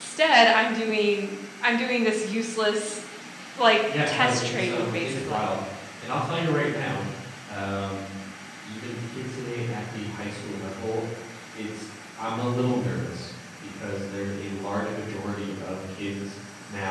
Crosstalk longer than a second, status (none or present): present